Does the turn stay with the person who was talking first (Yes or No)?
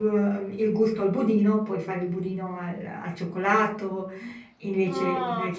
No